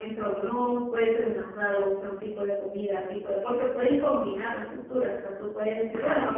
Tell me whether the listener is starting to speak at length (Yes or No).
No